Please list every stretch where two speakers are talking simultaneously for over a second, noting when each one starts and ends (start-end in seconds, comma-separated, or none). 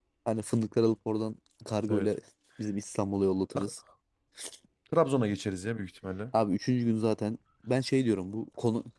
none